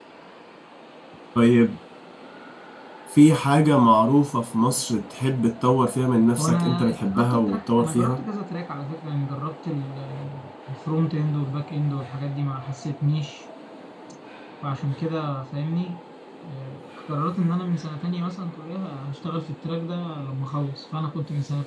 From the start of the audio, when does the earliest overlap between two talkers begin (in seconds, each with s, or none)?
6.4 s